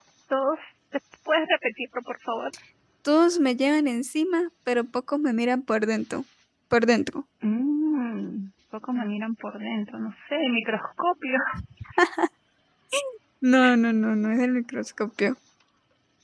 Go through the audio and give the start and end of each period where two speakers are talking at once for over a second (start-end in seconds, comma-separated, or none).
none